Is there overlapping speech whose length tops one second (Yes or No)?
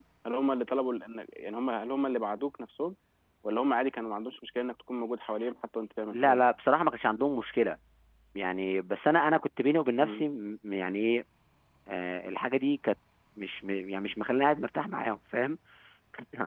No